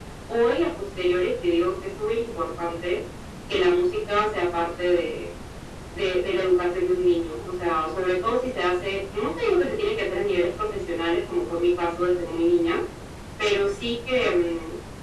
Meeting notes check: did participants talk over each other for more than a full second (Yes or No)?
No